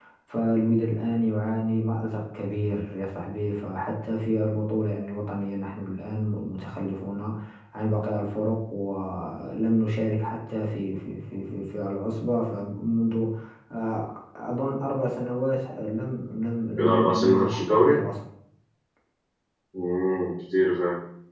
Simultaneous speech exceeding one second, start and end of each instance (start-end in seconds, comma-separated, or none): 16.8-18.0